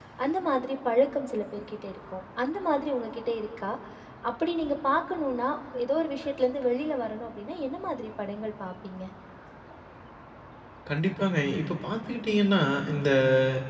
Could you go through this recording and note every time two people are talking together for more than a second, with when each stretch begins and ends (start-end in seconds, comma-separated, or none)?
none